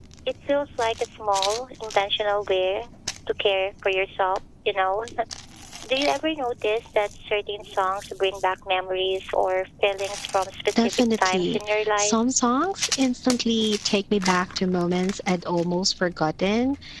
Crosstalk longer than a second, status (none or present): present